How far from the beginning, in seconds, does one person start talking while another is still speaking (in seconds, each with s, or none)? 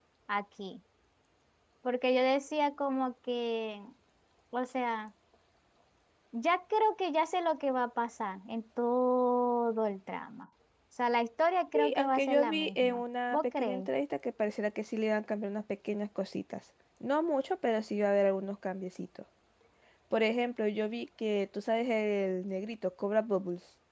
11.7 s